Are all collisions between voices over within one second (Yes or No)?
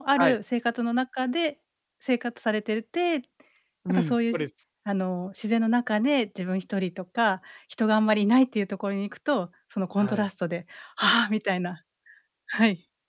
Yes